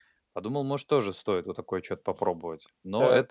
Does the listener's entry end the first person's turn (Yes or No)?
Yes